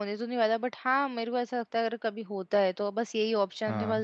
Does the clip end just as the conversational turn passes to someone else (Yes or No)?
No